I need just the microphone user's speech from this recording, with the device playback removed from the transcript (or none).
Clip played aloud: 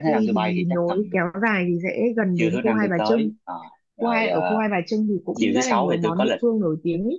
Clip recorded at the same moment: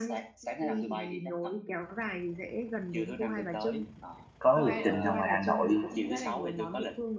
có lịch trình nào ngoài Hà Nội